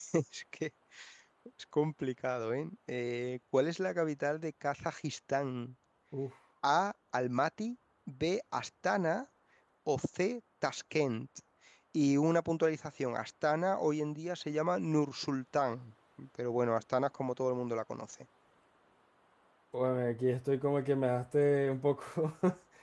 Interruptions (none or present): none